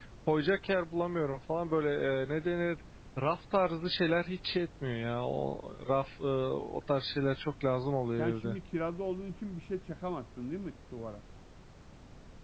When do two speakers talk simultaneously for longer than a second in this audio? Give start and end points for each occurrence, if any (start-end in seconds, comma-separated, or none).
none